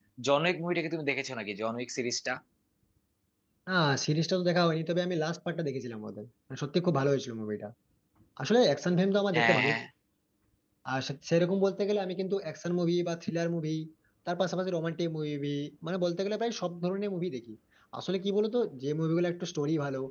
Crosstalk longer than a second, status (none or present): none